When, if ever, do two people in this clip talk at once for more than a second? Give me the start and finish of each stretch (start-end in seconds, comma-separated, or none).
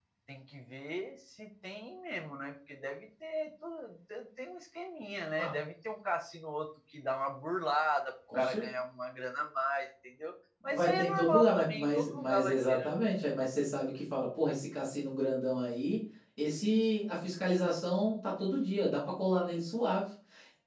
10.7-12.9